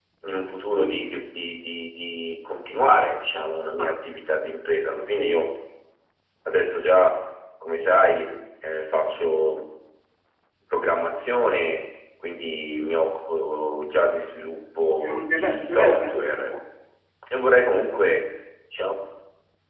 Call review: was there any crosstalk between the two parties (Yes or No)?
Yes